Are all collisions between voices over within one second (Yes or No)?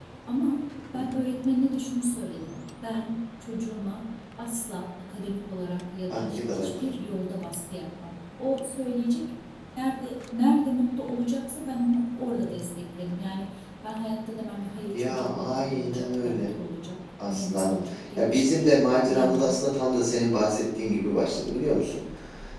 No